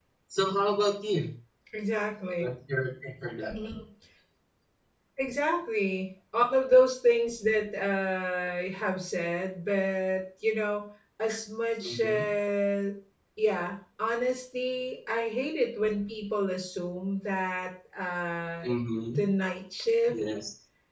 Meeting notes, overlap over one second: none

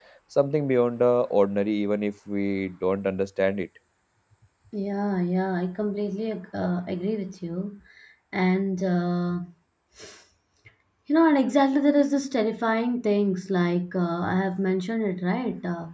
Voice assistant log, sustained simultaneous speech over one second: none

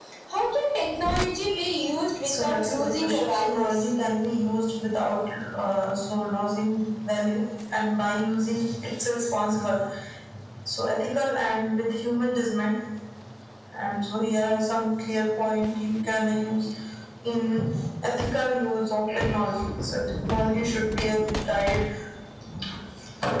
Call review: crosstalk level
present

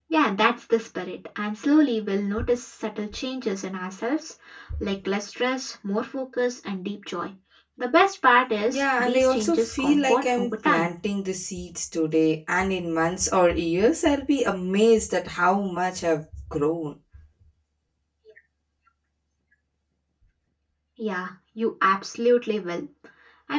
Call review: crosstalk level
present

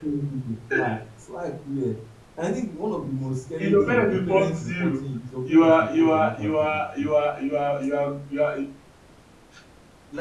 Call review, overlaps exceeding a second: present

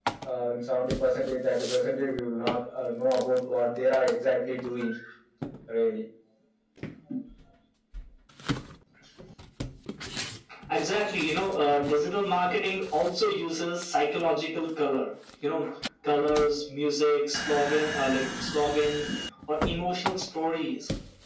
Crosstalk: none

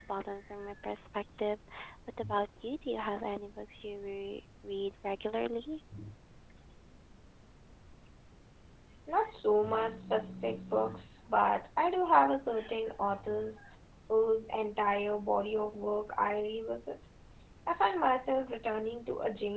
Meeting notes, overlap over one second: none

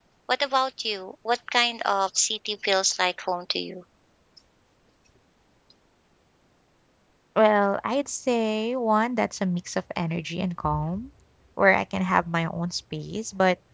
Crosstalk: none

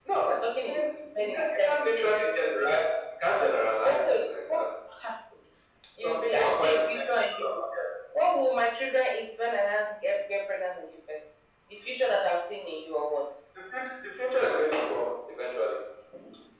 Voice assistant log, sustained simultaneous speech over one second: present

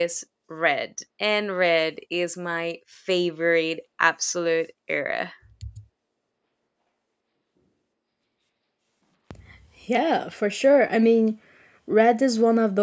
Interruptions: none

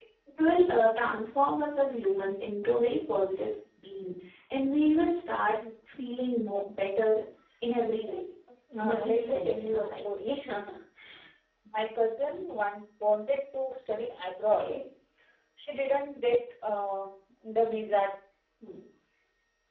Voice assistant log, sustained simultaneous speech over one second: present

